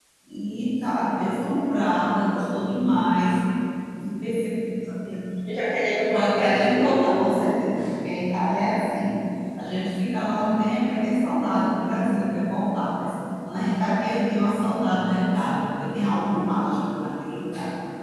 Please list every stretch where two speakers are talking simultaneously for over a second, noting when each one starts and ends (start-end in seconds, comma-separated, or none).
6.1-7.5